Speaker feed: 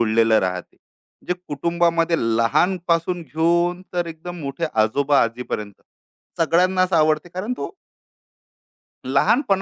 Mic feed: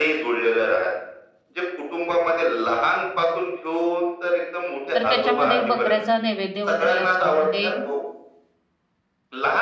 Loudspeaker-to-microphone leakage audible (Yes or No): Yes